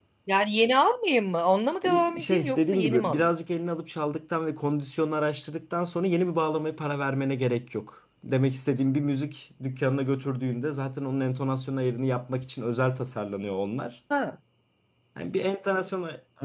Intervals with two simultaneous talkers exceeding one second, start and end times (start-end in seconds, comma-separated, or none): 1.8-3.4